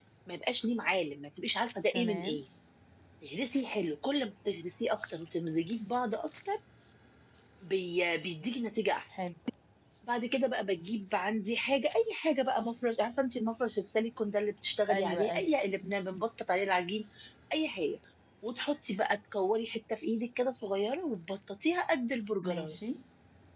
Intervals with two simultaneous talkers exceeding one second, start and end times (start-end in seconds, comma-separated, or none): none